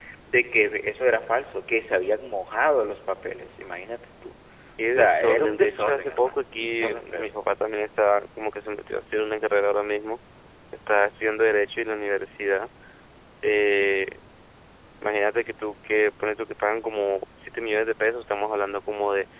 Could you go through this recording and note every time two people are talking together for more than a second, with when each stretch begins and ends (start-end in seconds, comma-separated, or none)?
4.8-7.3